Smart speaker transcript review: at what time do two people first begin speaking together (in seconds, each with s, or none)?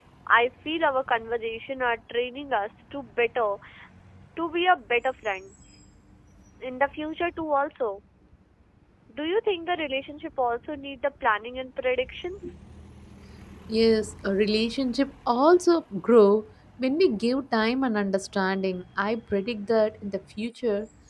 none